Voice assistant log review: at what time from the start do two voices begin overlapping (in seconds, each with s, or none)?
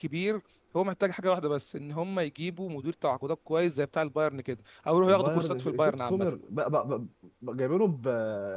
5.1 s